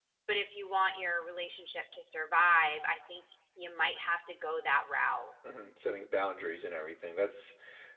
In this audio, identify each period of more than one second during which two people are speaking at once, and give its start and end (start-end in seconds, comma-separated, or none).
none